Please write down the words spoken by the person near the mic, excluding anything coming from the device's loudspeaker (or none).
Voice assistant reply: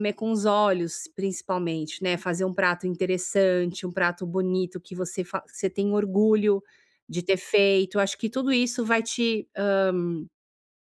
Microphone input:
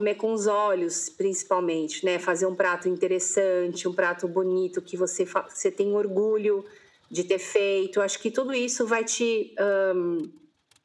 none